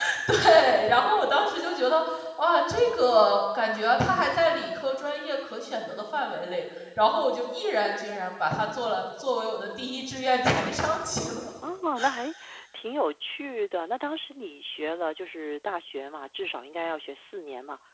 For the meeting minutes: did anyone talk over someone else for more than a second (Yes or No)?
No